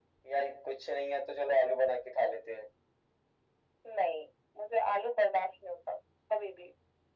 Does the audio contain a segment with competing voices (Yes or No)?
No